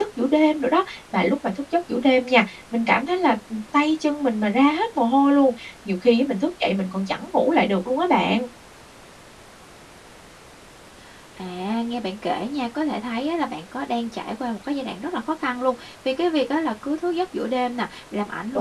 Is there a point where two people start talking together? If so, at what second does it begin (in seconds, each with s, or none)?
none